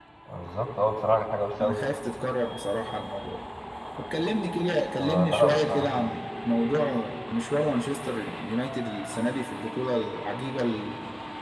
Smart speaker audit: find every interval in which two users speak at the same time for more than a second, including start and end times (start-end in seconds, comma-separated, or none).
5.0-6.2